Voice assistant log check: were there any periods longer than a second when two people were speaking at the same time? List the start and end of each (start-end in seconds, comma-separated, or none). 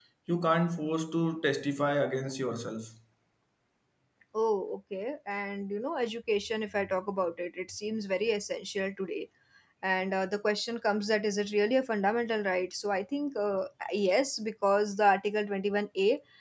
none